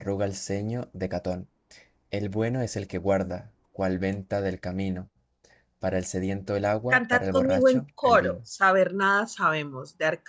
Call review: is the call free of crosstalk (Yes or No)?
No